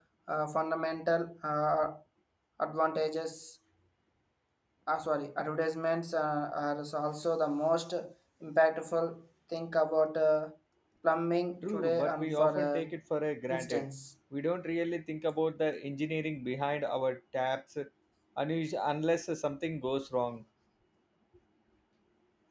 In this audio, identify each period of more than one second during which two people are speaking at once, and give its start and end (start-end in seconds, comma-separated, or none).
11.6-12.9